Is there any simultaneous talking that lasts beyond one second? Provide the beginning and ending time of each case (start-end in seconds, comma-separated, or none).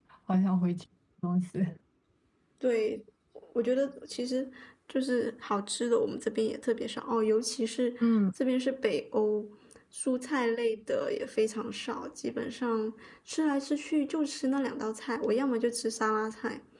none